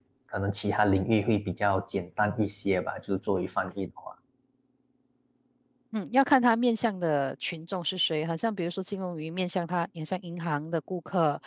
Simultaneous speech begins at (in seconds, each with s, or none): none